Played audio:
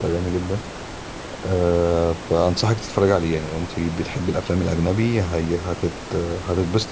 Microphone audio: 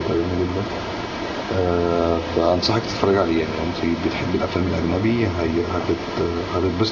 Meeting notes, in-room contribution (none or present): none